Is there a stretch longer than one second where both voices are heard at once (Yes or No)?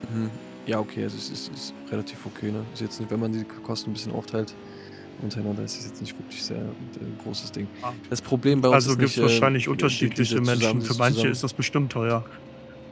Yes